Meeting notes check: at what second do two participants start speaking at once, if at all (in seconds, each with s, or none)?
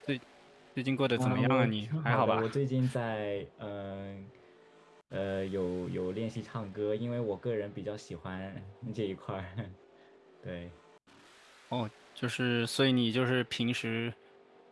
1.2 s